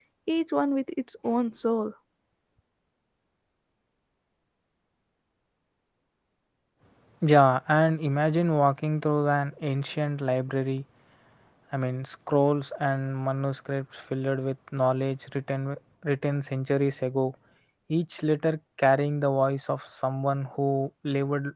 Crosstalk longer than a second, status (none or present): none